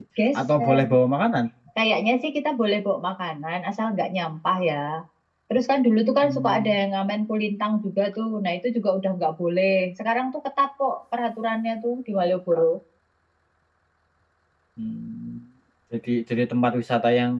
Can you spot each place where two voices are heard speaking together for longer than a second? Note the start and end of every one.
none

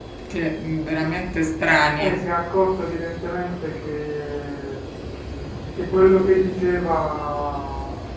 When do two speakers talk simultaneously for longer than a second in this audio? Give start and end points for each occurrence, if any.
none

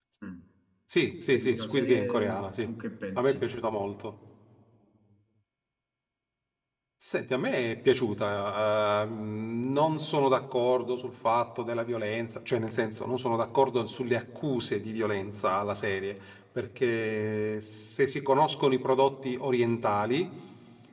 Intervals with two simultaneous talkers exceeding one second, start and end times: 1.3-2.7

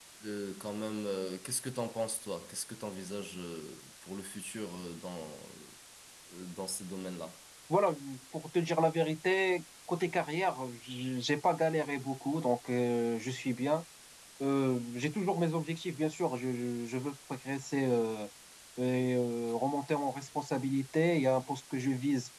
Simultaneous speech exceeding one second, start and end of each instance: none

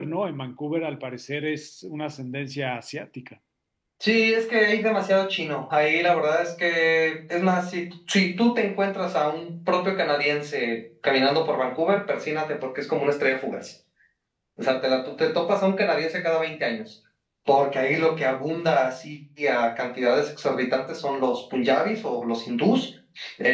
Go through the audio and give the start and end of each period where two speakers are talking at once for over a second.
none

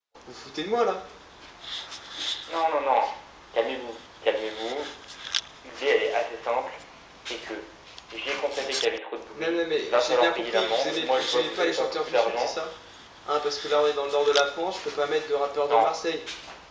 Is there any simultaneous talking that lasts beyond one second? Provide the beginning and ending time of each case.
9.3-12.5

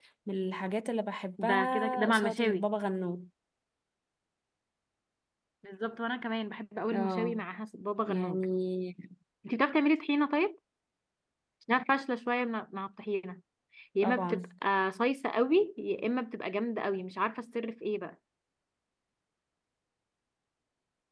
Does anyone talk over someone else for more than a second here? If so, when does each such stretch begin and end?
1.4-2.6

